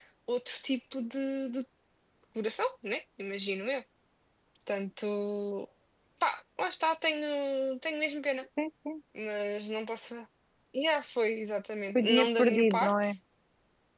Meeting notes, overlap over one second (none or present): present